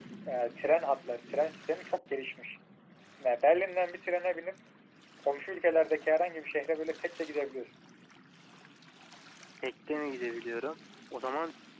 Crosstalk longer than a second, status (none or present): none